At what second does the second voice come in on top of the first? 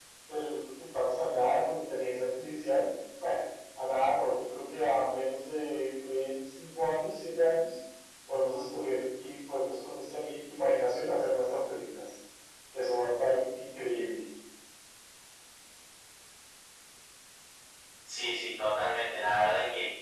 none

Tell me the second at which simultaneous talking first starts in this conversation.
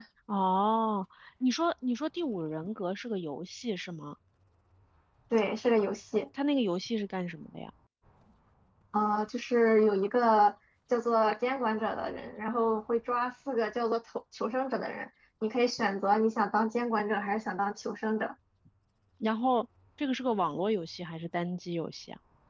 none

